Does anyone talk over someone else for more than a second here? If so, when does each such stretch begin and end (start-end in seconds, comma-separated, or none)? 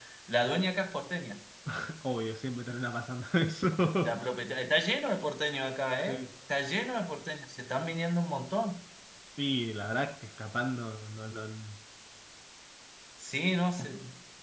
none